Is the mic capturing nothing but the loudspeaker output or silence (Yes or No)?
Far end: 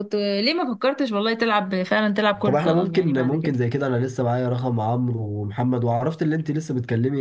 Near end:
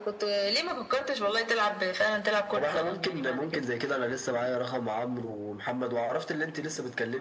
Yes